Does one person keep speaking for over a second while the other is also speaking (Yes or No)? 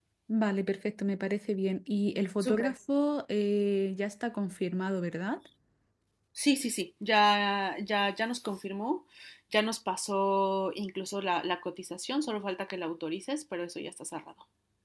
No